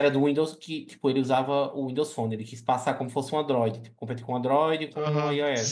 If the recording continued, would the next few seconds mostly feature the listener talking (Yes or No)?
Yes